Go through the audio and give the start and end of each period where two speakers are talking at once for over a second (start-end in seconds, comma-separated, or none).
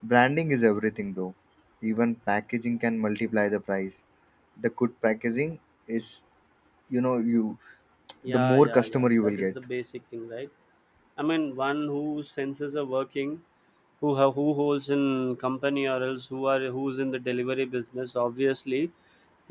8.3-9.5